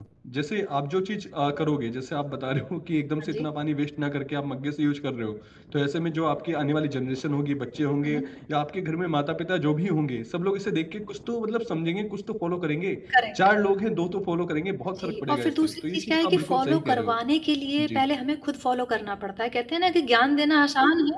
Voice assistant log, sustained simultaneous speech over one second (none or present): present